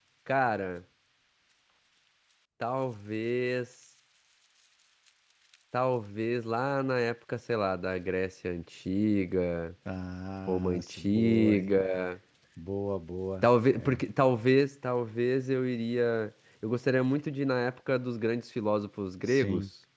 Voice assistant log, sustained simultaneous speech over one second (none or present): present